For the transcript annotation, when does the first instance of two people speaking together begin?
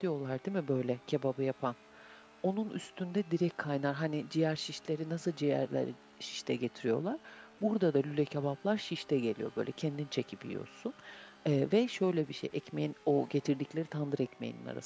none

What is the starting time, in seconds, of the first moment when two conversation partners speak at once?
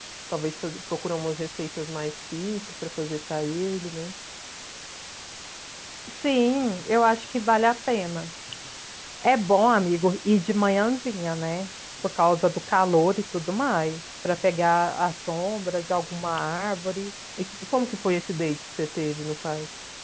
none

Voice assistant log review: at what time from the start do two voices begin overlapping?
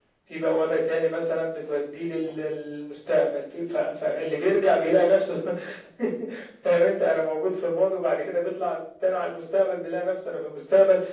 none

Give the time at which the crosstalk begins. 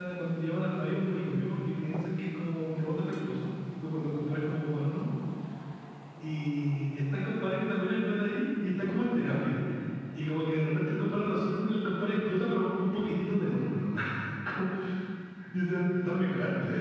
none

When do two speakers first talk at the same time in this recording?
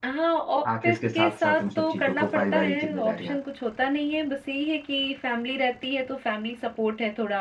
1 s

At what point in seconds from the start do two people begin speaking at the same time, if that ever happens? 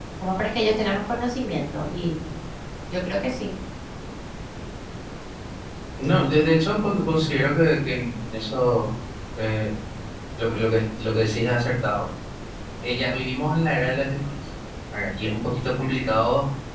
none

